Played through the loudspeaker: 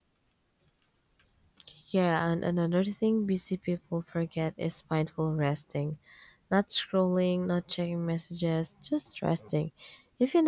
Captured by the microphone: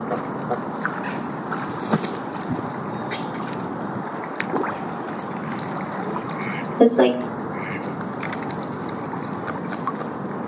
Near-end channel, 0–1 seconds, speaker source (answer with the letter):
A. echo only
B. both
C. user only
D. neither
D